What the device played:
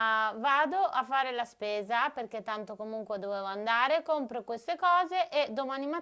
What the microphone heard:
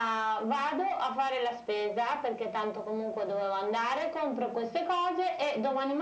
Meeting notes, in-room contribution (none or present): none